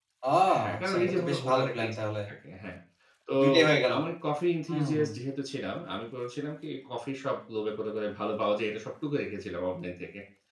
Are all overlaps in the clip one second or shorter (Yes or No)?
No